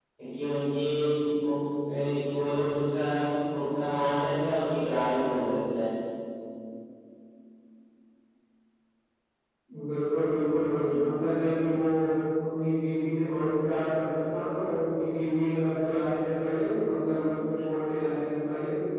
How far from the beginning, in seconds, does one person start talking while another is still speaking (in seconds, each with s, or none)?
none